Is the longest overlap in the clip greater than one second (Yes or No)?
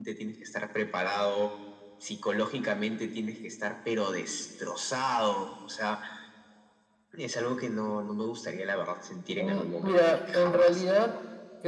Yes